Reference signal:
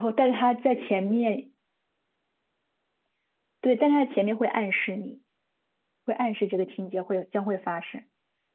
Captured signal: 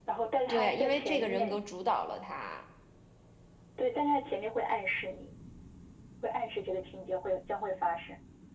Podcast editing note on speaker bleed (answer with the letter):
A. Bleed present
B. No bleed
A